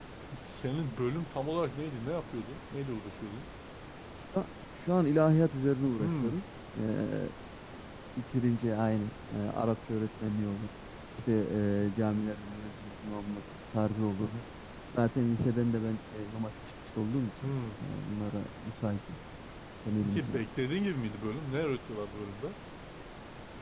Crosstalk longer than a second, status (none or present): none